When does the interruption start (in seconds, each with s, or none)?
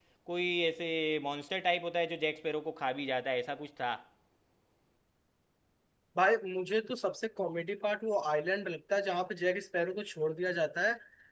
none